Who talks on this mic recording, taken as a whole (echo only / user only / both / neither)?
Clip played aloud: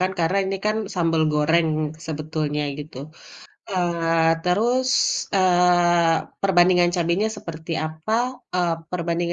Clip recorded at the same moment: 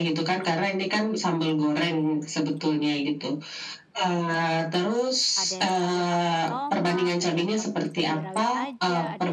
both